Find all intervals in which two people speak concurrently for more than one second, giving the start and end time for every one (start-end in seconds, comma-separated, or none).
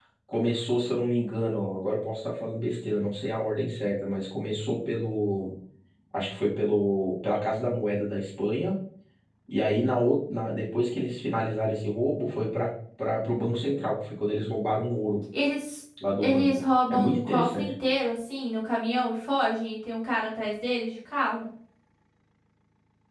16.2-17.7